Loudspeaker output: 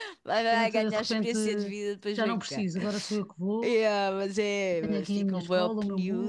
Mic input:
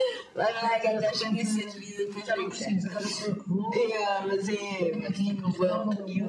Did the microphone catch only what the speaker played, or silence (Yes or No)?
Yes